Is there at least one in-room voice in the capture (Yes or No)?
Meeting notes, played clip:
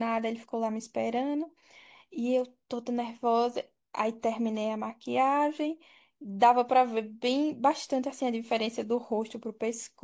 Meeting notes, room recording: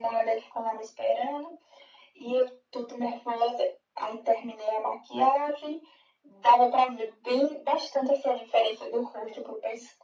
No